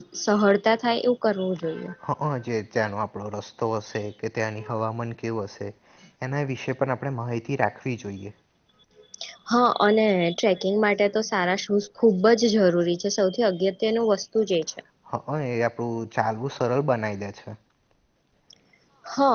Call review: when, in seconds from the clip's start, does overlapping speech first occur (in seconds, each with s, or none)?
none